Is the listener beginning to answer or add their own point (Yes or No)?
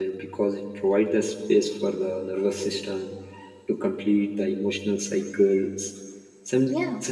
No